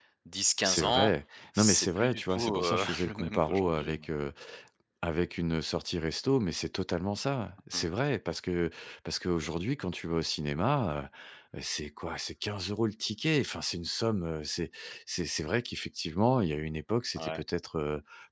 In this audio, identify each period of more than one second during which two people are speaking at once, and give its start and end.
1.6-4.0

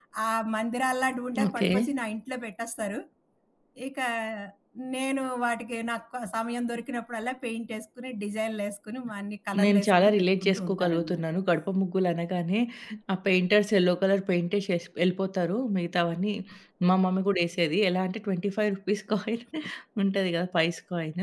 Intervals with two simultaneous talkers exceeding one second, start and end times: 9.6-11.2

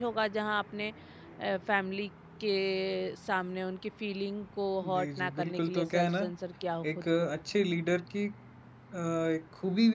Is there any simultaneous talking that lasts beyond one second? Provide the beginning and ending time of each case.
4.9-6.2

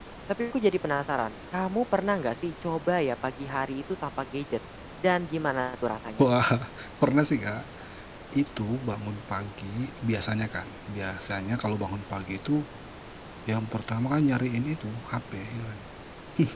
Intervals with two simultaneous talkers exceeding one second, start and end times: none

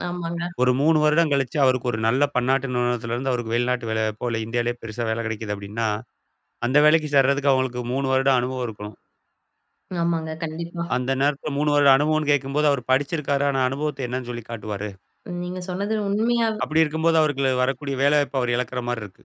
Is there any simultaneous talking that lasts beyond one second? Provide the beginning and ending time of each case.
none

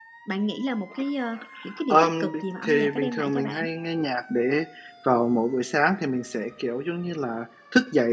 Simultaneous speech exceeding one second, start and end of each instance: 1.9-3.7

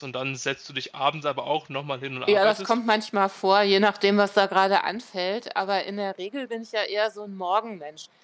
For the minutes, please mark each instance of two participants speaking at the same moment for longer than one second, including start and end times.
none

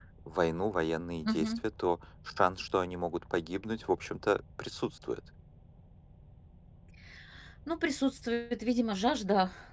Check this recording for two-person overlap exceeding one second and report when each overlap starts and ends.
none

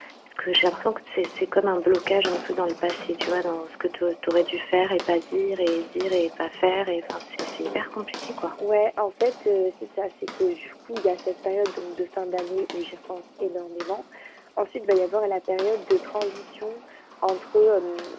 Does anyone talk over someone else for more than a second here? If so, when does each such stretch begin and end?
none

